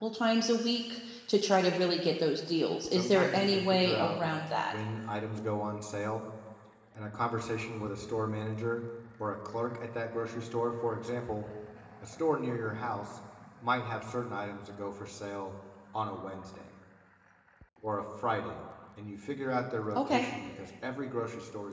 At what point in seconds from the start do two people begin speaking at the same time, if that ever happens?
2.9 s

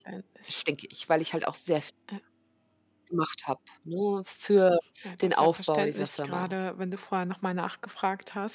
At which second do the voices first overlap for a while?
5.2 s

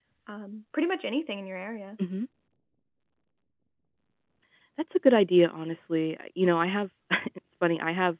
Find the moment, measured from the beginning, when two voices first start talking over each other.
none

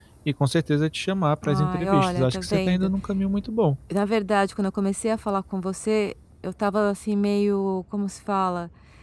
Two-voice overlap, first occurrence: 1.4 s

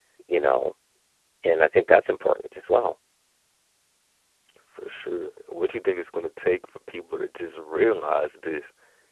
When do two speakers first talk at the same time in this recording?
none

